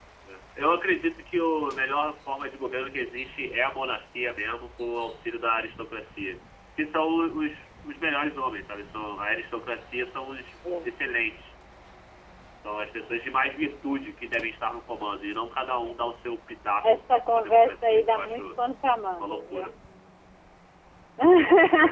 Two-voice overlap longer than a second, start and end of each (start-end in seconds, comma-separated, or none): 16.8-18.4